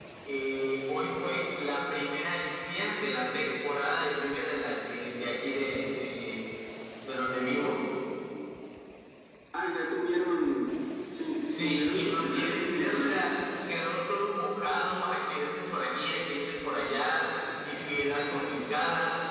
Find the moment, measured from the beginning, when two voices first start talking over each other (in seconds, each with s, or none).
11.4 s